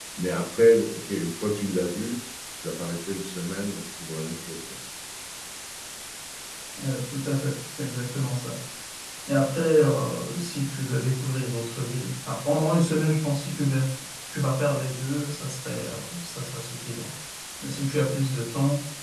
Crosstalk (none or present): none